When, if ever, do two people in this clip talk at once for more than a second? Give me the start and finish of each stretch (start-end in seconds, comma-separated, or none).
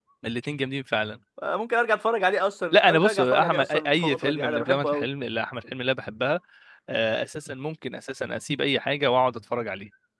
2.7-5.1